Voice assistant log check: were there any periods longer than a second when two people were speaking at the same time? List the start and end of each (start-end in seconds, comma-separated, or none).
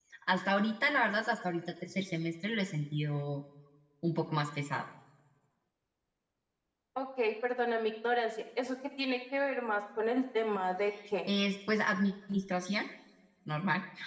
none